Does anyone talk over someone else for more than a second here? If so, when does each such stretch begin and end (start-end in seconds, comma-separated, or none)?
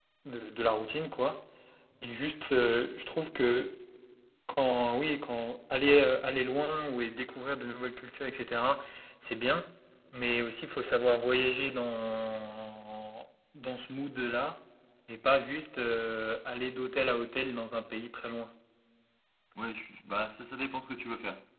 none